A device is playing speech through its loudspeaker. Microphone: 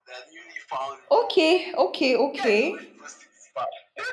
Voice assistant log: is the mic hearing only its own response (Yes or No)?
No